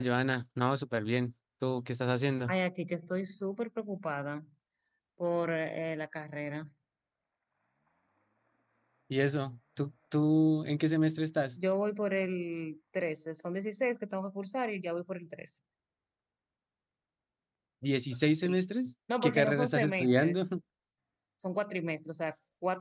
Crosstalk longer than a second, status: present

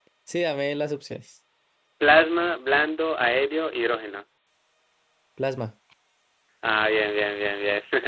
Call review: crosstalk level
none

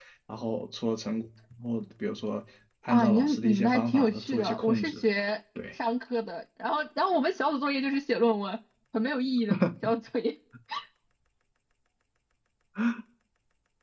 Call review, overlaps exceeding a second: present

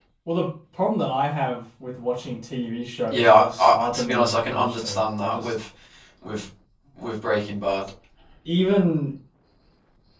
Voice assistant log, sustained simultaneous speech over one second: present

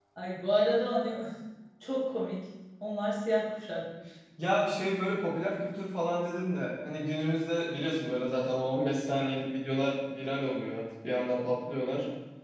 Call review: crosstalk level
none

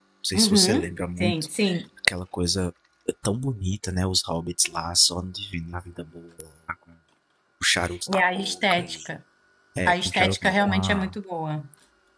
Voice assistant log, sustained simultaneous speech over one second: present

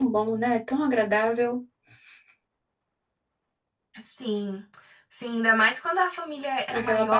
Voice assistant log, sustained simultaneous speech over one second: none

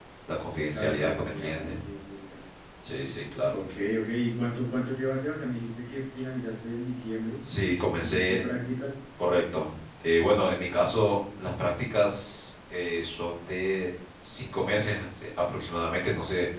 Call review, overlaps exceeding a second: present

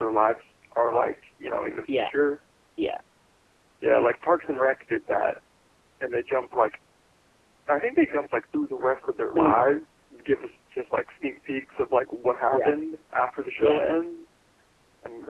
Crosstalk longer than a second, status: none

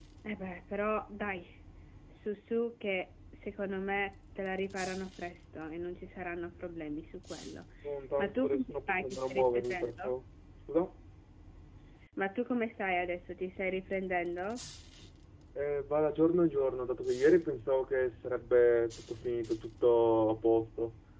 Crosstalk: present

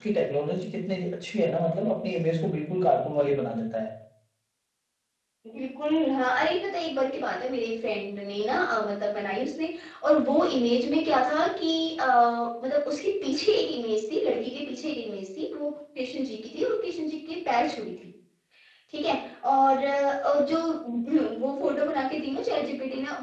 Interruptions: none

